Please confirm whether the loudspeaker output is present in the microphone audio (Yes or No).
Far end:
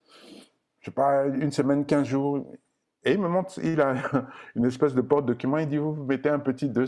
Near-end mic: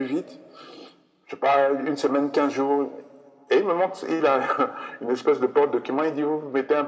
Yes